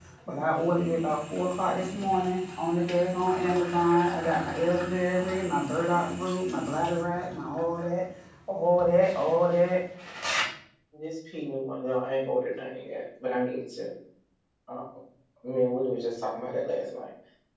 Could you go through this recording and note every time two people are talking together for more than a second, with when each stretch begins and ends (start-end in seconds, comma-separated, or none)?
none